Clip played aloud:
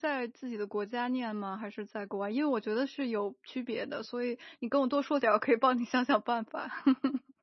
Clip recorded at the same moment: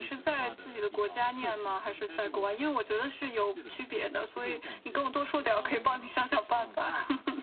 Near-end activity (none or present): present